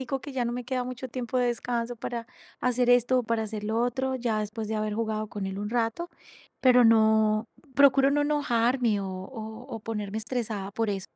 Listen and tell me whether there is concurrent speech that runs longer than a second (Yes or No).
No